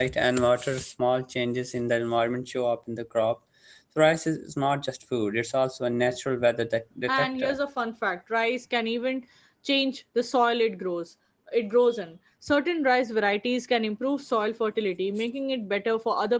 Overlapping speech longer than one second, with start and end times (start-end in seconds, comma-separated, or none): none